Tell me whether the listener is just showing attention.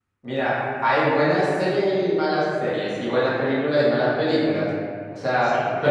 Yes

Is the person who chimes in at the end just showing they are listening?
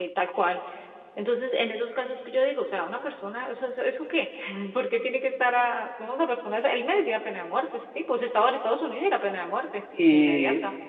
No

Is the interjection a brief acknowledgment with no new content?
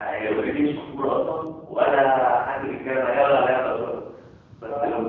Yes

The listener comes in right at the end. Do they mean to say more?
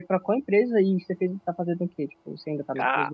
Yes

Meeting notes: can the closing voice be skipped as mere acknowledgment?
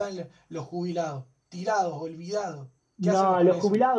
No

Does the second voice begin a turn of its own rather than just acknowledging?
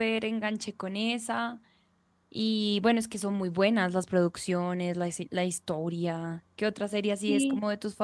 Yes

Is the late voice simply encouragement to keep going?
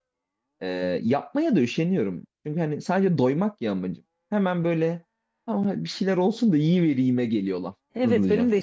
No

